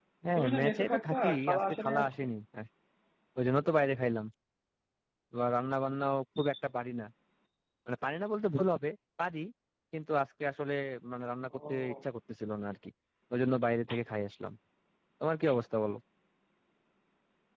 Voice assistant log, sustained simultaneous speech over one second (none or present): present